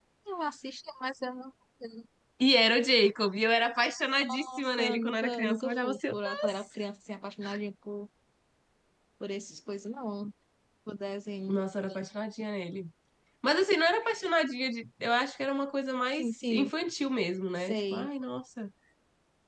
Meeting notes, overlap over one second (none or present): present